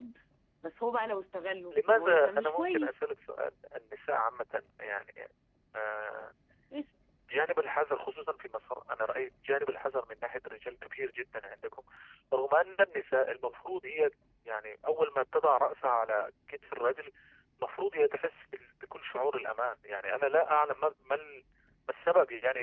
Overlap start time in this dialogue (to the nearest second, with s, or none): 2 s